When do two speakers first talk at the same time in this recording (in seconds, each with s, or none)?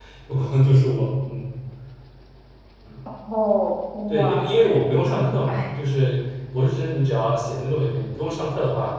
4.1 s